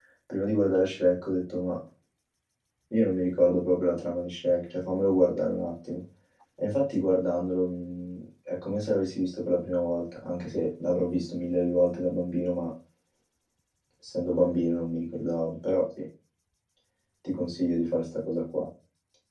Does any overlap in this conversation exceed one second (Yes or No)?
No